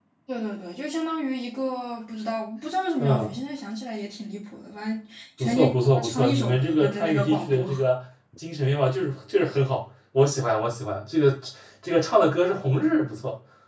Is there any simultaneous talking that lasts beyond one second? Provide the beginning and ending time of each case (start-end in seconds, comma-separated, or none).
5.4-7.7